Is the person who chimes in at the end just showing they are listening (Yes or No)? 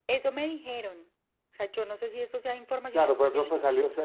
No